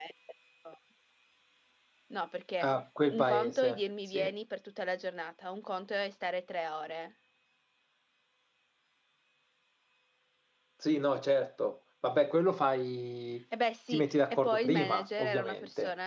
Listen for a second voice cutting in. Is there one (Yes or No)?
Yes